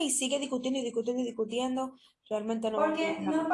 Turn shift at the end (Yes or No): Yes